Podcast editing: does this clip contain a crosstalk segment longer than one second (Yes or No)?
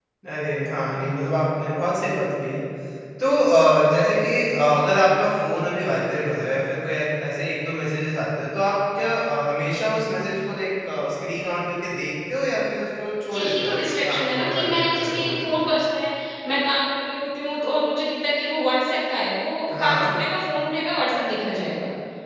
Yes